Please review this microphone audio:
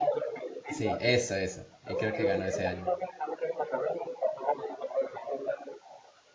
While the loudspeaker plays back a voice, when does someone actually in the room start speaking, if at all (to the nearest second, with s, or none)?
1 s